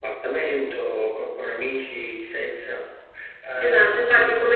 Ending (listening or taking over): taking over